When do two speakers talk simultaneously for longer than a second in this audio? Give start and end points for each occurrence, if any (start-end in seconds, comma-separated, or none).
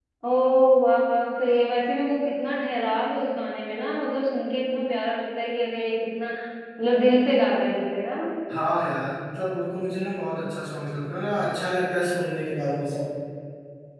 none